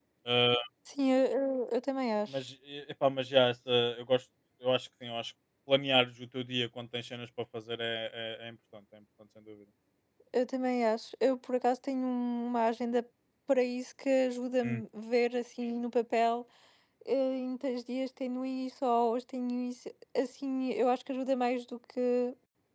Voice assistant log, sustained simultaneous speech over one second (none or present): none